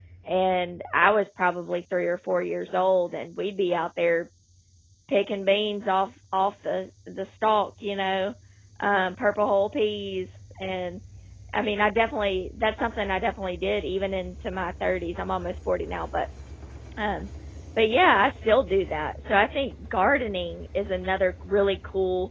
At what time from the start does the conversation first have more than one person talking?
none

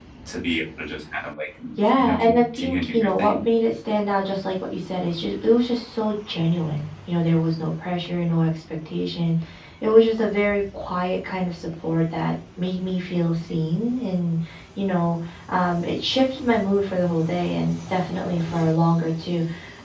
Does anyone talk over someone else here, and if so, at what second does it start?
2 s

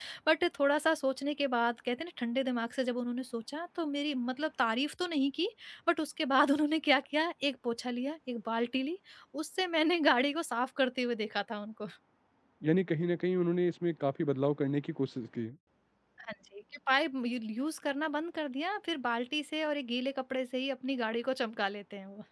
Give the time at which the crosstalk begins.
none

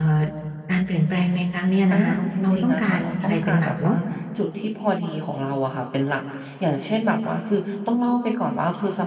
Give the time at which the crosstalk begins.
2 s

